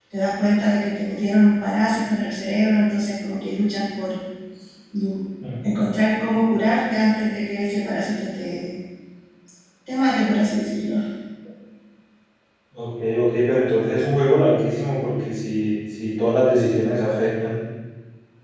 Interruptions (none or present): none